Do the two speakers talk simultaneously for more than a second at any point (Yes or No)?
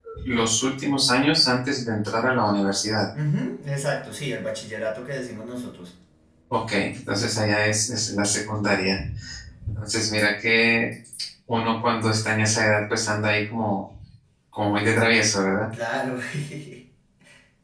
No